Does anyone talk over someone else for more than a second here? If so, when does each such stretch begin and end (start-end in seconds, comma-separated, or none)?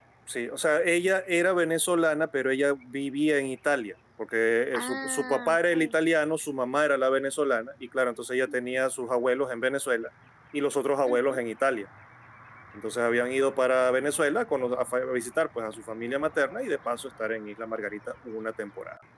4.7-5.9